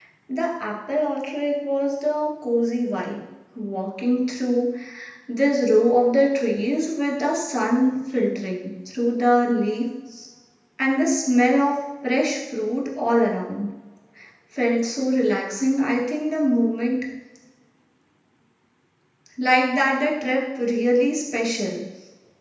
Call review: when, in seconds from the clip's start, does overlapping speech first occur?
none

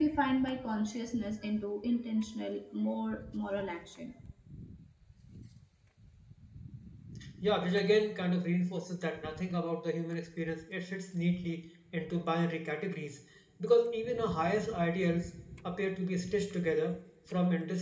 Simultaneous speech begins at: none

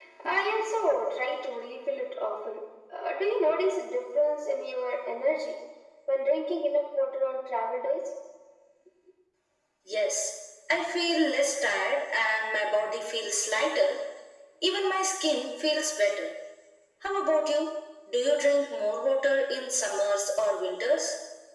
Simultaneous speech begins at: none

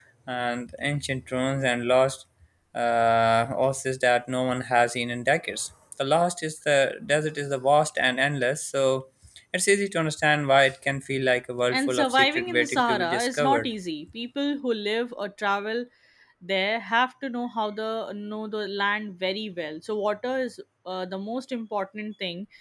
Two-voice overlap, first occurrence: 12 s

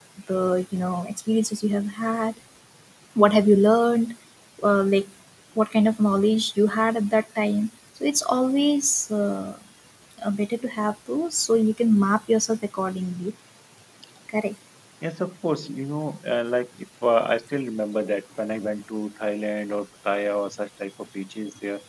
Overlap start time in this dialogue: none

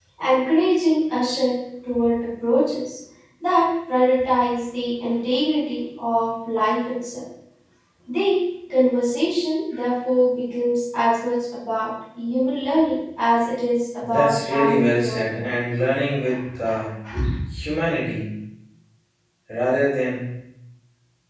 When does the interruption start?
14 s

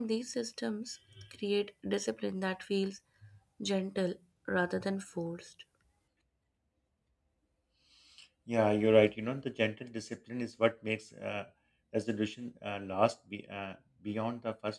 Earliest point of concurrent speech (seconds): none

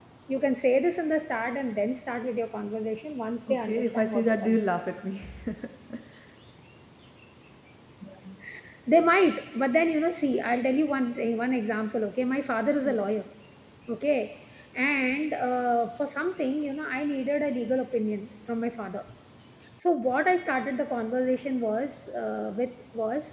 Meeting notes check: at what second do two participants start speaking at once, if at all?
3 s

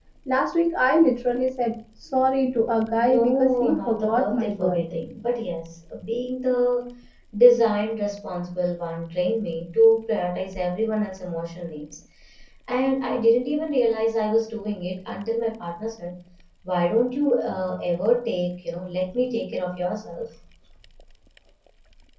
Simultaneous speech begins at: 3 s

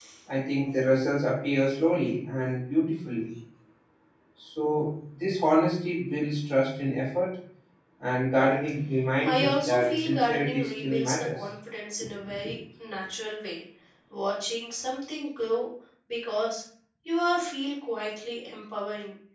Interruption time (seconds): 9 s

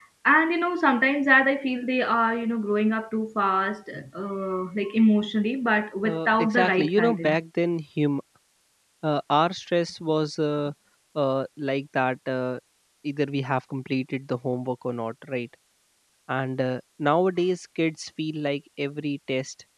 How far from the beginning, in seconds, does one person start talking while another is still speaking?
6 s

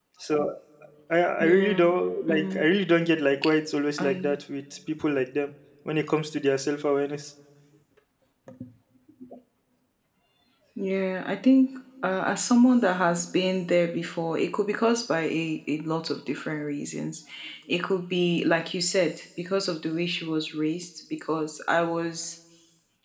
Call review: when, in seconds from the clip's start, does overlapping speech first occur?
1 s

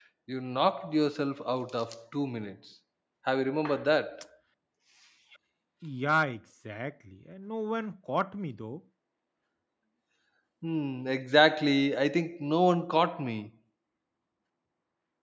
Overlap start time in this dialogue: none

